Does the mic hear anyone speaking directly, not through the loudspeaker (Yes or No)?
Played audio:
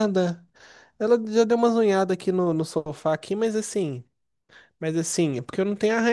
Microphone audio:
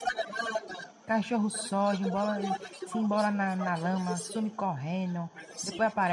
Yes